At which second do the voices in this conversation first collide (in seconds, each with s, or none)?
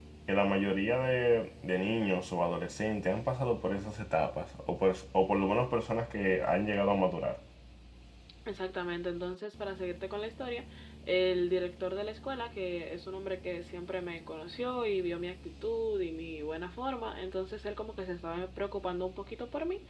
none